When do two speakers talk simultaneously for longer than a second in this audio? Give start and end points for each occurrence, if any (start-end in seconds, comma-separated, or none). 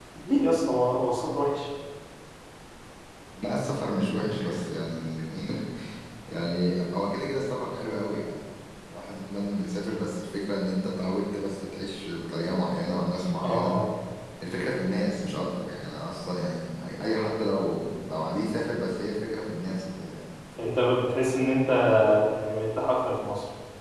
none